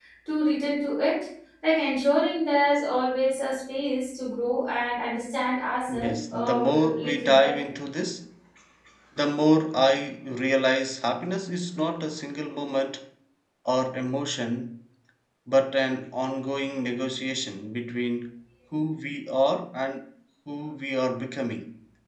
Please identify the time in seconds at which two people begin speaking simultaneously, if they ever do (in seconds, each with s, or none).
5.9 s